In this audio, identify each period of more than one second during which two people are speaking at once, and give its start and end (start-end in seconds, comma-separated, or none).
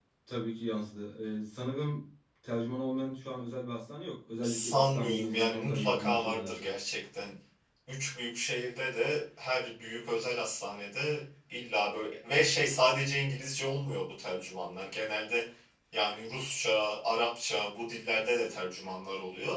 4.4-6.7